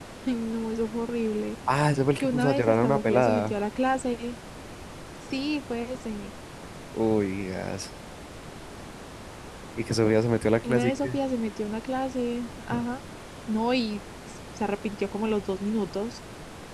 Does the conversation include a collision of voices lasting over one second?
Yes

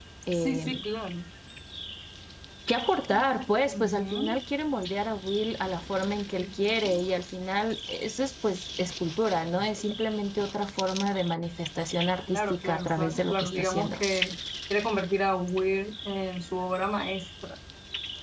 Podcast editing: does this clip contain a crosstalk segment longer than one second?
Yes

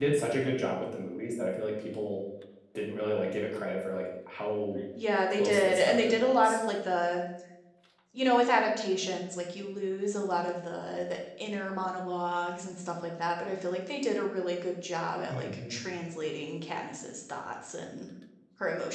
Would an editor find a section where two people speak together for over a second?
Yes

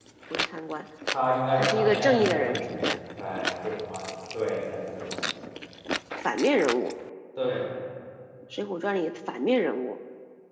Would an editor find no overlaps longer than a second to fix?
No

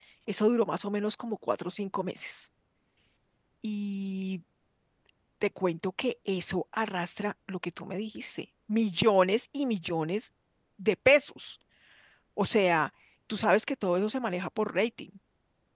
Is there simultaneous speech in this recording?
No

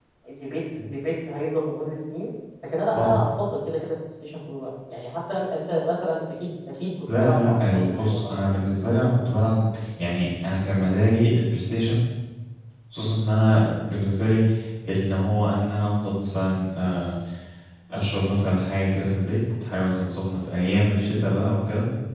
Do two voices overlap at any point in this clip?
Yes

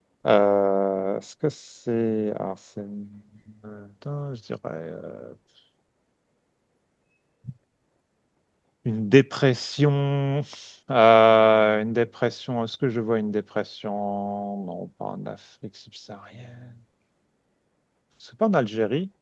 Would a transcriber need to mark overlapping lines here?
No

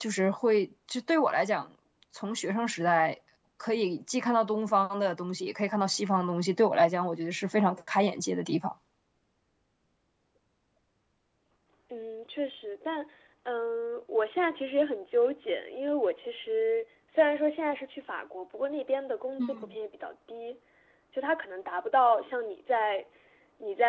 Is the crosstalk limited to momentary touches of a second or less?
Yes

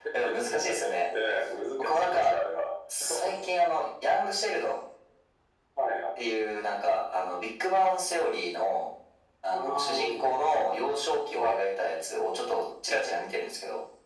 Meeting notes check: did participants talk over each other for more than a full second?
Yes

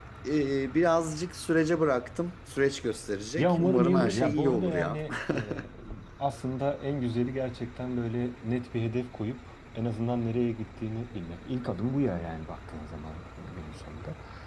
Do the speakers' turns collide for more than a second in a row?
Yes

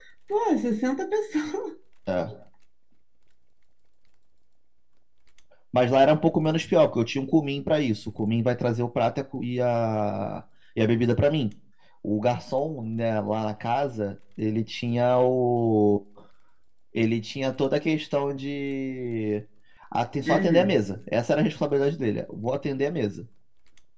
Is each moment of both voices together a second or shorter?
Yes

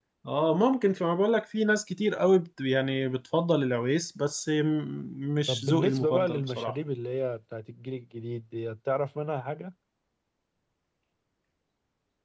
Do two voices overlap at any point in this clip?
Yes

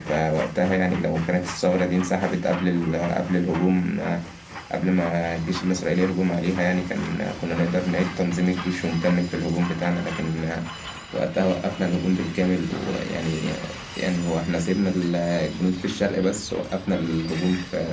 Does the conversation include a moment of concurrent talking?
No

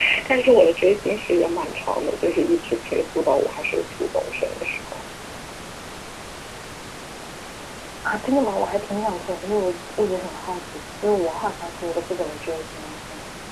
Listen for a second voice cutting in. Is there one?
No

